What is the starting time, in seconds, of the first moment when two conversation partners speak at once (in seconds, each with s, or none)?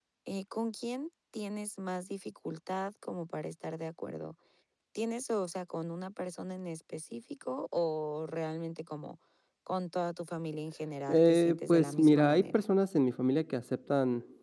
11.1 s